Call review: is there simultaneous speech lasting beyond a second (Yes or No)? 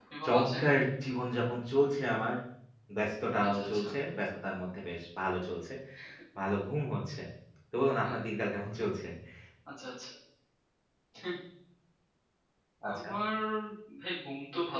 No